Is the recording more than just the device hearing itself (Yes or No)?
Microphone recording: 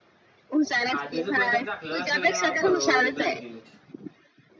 Yes